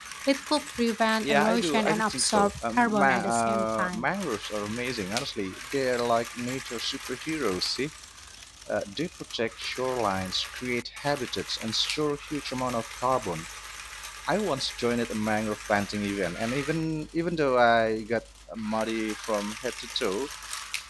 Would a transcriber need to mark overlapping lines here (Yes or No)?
Yes